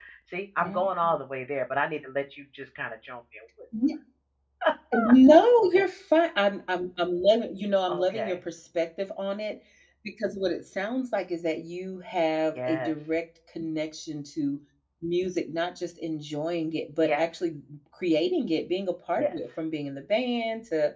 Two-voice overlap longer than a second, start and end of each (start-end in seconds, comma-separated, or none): none